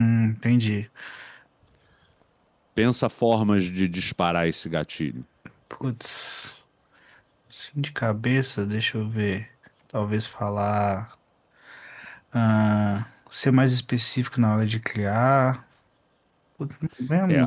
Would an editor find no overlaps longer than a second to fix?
Yes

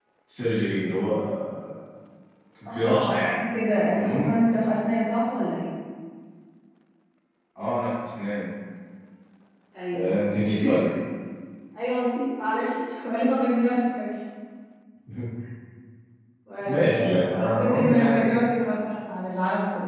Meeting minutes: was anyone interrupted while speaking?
Yes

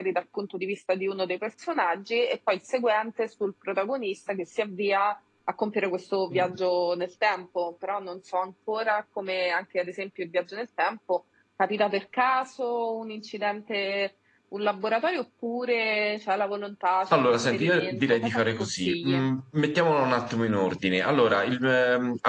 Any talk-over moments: Yes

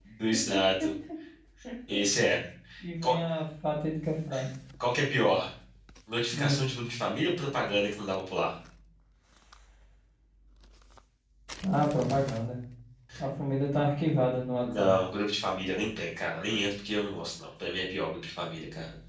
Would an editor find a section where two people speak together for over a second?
No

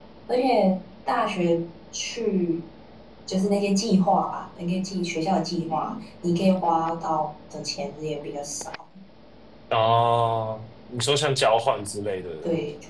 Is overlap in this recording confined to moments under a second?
Yes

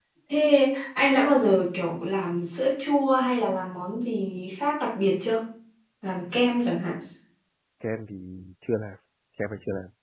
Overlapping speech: No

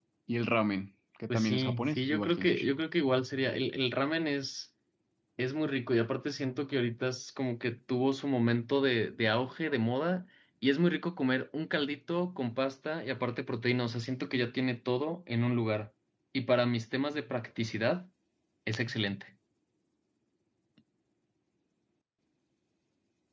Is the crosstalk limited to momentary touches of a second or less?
No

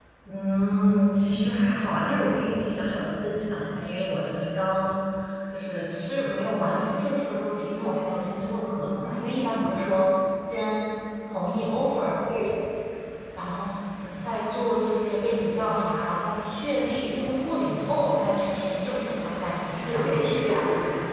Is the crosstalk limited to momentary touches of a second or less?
Yes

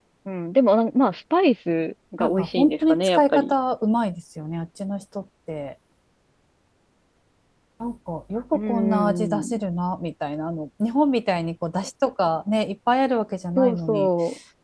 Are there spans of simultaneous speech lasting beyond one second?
Yes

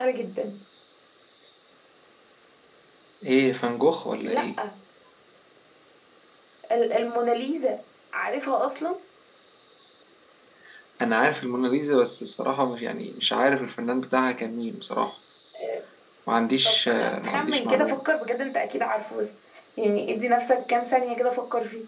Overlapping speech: Yes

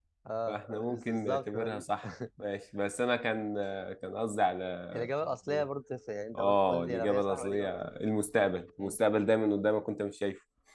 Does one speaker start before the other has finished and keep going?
Yes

